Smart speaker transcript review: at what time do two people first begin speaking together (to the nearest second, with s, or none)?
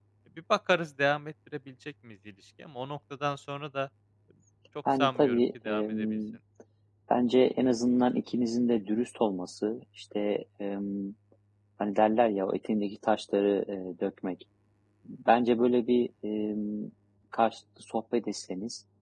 5 s